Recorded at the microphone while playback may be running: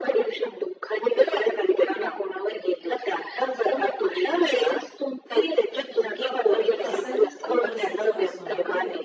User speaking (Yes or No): Yes